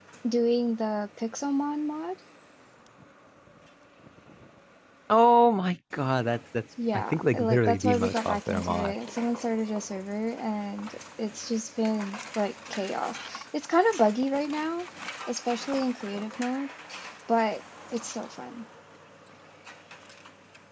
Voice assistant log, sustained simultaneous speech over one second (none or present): present